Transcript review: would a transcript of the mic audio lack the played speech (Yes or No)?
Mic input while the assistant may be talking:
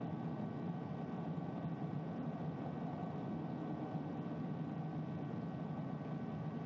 Yes